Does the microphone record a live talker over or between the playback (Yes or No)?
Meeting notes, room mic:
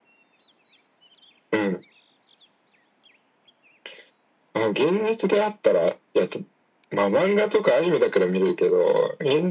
No